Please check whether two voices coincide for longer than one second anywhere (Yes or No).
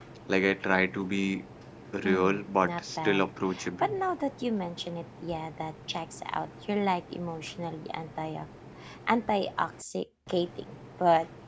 Yes